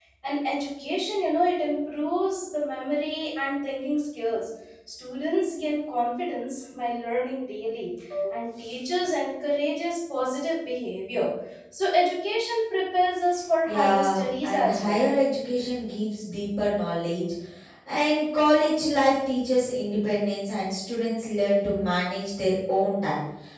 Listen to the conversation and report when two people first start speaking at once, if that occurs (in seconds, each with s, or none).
13.7 s